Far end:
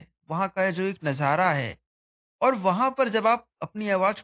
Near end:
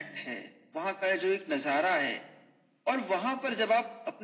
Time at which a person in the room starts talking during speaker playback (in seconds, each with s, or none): none